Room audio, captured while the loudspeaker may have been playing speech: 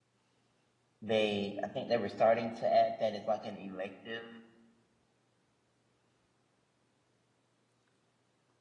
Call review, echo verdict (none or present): none